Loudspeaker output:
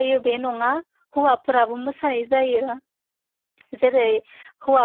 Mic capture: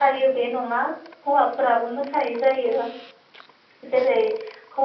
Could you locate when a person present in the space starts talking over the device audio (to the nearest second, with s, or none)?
none